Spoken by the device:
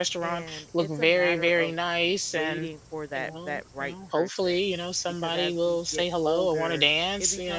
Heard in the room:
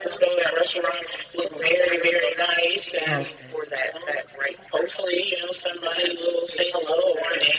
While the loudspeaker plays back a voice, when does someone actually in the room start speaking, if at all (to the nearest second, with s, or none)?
3 s